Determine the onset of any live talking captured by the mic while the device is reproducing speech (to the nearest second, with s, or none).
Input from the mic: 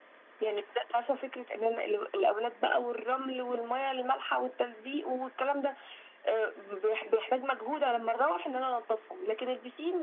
none